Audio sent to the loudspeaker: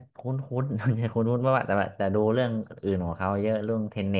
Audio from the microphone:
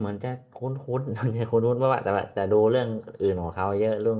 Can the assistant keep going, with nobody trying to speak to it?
Yes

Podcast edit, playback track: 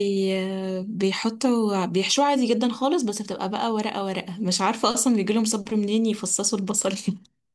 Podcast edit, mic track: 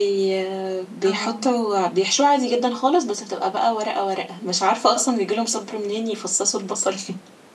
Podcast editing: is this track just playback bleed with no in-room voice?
No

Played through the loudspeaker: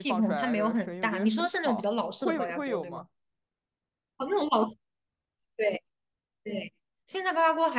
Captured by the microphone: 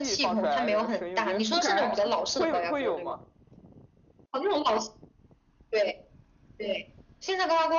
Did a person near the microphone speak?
Yes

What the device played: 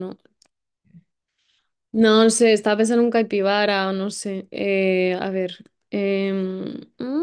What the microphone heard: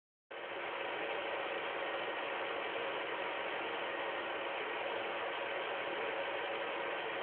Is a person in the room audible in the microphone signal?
No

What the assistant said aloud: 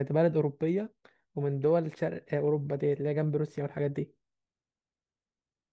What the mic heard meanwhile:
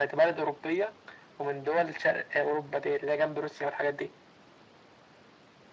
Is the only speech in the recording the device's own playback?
Yes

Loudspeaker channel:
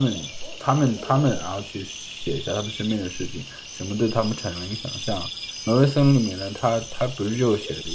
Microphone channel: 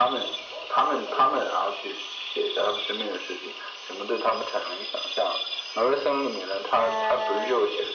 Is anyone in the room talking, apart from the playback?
Yes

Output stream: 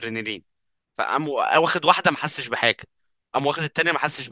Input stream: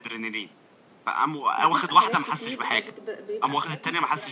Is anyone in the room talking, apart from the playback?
Yes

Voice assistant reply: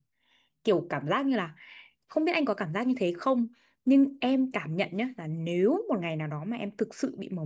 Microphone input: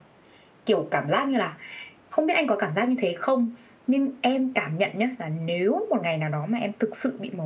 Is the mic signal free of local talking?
Yes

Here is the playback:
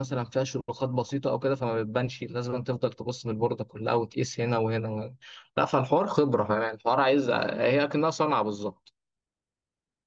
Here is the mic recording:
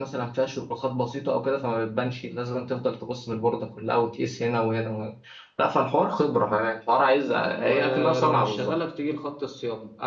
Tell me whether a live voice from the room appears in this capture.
Yes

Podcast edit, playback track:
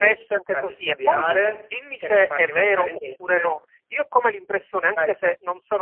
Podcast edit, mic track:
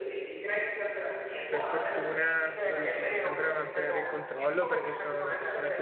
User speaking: Yes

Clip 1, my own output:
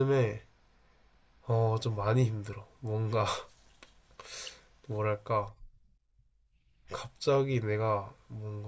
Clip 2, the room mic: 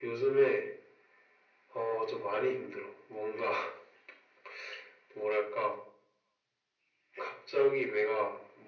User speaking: No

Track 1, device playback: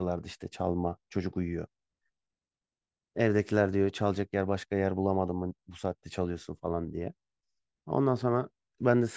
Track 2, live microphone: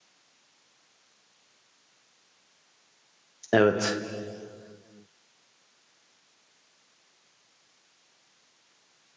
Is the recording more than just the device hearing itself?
Yes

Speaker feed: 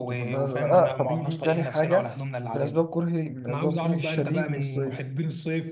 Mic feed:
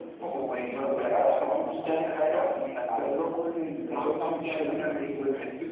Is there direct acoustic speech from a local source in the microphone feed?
No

